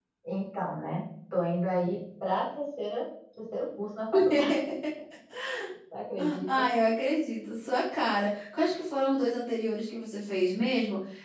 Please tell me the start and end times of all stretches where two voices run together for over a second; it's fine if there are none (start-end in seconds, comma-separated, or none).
none